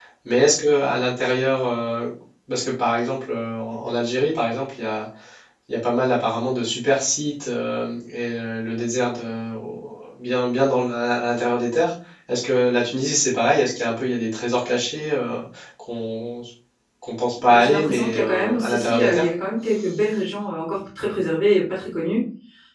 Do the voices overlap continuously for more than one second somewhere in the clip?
Yes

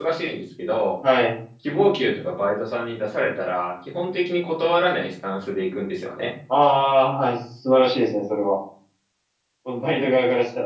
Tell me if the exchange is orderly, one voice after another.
Yes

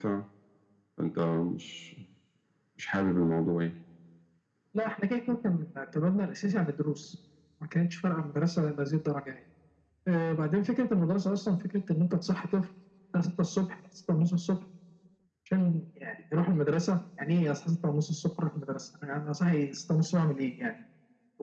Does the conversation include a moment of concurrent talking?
No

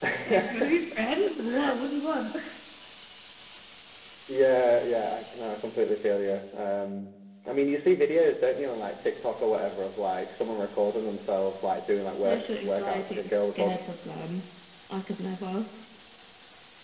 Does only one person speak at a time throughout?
No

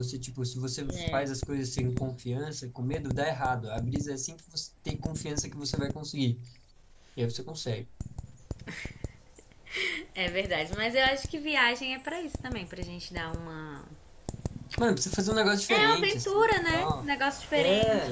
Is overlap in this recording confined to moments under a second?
No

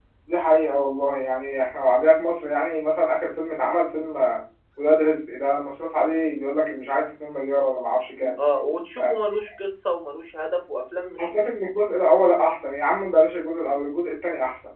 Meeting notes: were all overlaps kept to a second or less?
Yes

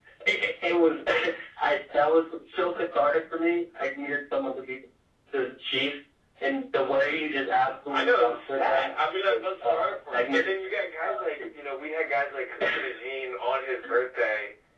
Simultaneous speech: Yes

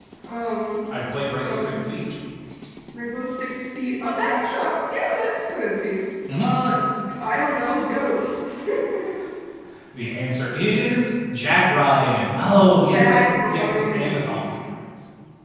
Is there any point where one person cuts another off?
Yes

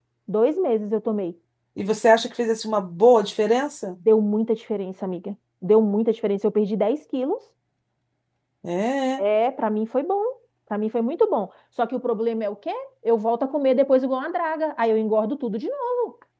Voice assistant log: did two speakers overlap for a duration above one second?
No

